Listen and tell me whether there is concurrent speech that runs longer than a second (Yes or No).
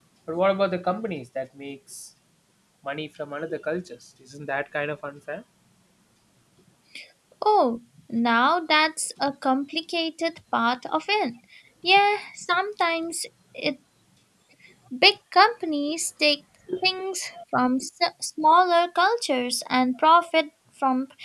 No